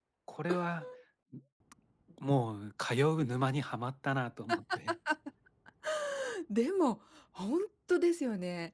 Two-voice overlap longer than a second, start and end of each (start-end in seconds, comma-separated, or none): none